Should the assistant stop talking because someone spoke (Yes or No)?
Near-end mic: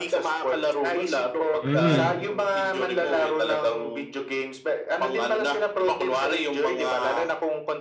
Yes